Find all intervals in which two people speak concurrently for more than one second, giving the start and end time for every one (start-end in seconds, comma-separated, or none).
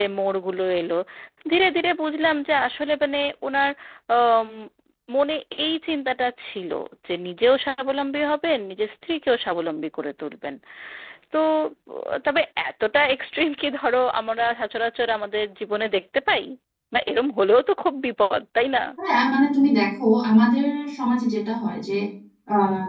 none